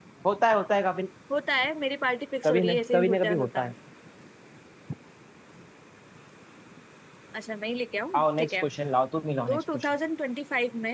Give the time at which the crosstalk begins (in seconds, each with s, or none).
2.5 s